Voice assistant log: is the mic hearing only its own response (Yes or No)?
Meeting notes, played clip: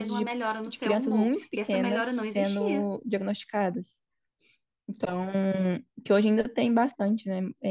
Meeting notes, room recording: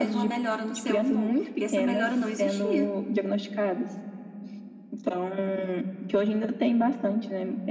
Yes